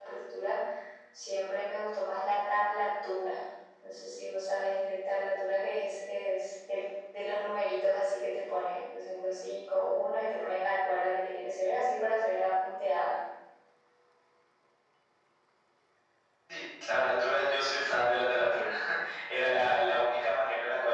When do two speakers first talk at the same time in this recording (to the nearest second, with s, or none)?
none